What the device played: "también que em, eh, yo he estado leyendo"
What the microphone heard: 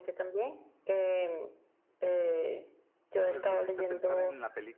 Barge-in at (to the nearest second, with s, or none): 3 s